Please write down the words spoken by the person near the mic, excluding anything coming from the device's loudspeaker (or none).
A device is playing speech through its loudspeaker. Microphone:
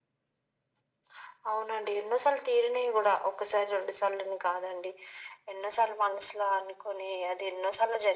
none